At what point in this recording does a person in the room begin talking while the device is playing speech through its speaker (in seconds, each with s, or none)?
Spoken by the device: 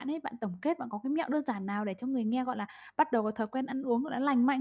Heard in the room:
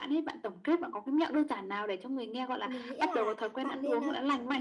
2.6 s